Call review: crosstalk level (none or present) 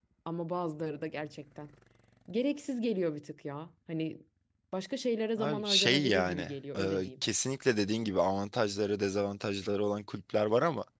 present